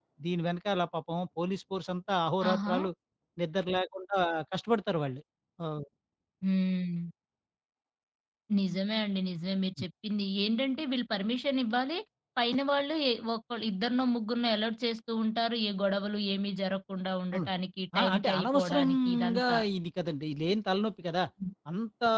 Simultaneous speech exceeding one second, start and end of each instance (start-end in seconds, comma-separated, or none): 18.0-19.6